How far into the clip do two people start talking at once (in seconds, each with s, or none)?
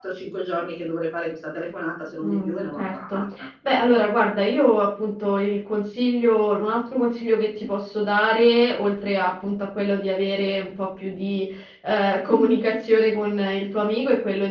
2.2 s